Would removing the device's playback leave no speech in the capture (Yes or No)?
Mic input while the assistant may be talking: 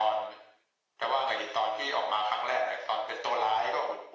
Yes